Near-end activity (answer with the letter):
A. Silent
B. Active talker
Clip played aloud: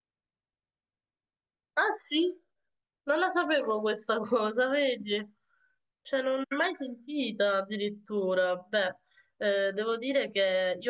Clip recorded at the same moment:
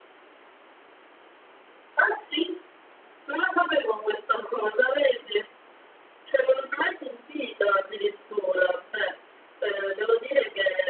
A